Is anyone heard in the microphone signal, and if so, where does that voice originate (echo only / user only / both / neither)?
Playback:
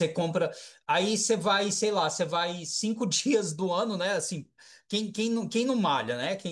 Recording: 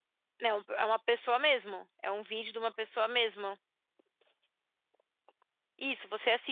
user only